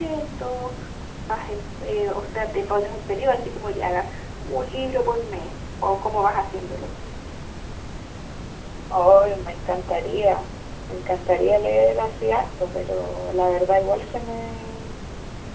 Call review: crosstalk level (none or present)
none